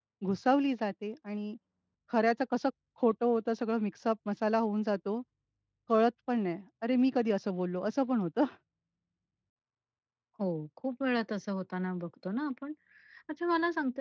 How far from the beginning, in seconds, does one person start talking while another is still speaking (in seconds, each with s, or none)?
none